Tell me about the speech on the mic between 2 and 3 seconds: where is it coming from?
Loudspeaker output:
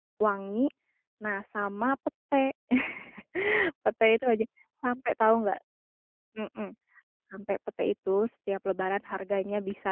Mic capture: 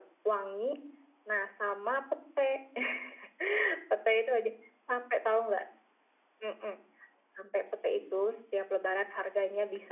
echo only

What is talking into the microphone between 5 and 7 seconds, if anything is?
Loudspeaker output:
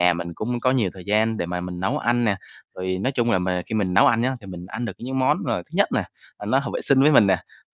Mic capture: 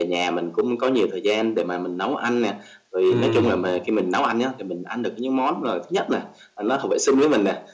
echo only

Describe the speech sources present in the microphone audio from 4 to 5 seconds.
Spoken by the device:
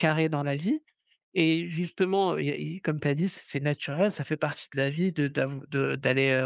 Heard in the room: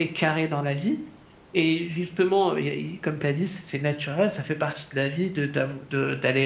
echo only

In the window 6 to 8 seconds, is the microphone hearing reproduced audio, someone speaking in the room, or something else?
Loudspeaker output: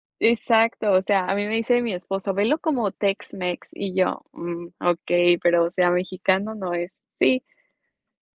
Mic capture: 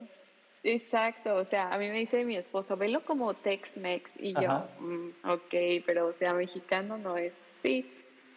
echo only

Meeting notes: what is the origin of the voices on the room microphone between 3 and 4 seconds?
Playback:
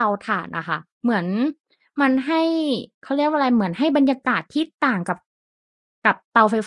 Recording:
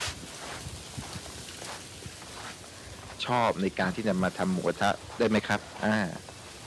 user only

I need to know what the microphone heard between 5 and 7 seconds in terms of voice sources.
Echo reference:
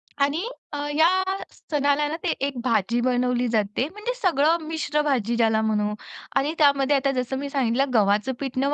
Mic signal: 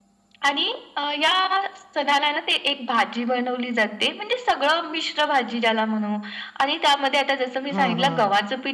echo only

